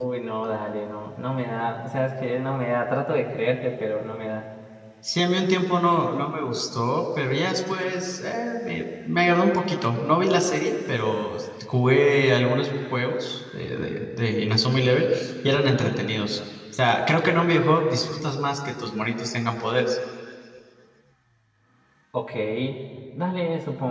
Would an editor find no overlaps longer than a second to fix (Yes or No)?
Yes